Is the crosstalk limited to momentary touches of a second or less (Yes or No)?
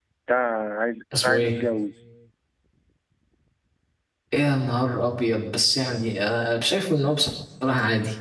Yes